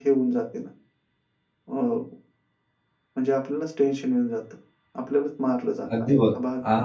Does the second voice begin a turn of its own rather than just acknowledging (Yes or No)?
Yes